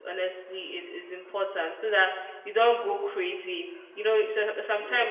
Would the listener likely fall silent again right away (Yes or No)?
Yes